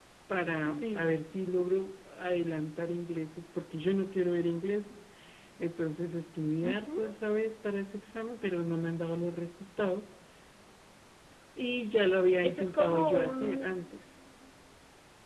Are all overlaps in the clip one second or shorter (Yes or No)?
No